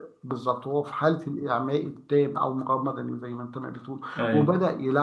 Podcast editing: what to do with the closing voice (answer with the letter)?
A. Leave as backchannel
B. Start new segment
A